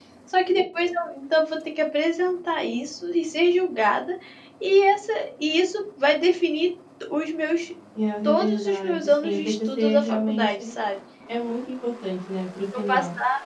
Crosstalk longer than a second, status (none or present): present